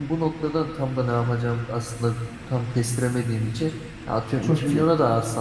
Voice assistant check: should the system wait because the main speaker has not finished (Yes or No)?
Yes